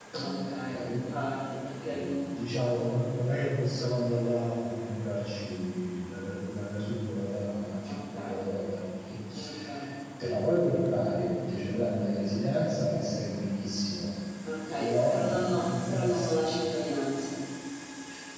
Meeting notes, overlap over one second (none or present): present